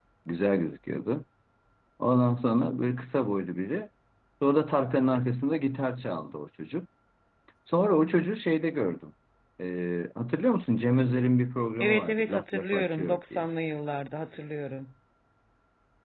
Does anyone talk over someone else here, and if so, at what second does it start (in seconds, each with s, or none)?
11.8 s